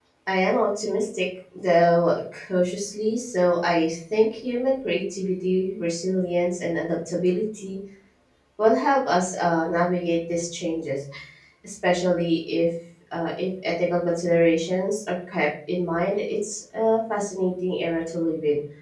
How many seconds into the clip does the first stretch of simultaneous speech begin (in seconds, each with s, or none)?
none